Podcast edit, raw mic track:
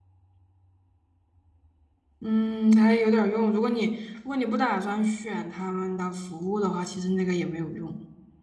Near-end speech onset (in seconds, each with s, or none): 2.2 s